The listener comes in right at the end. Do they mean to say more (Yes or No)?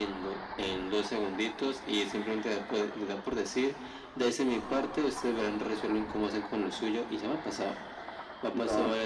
No